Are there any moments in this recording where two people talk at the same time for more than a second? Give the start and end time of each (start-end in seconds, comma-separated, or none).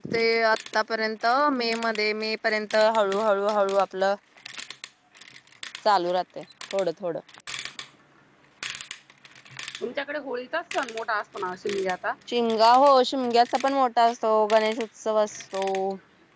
none